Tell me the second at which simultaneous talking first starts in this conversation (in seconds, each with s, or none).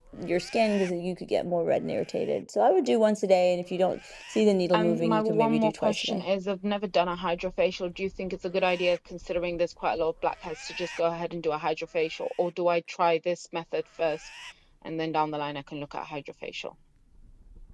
4.7 s